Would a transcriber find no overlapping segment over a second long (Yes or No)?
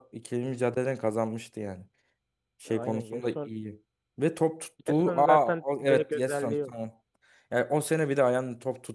No